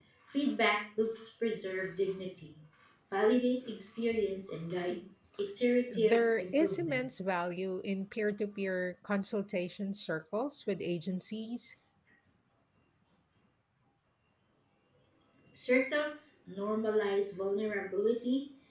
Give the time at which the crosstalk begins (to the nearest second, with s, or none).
6 s